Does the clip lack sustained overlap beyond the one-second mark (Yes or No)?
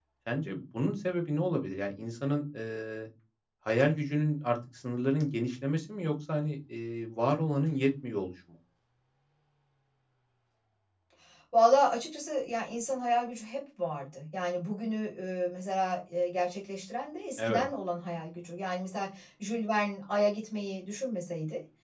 Yes